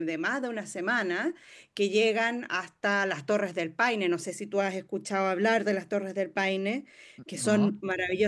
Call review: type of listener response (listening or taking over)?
listening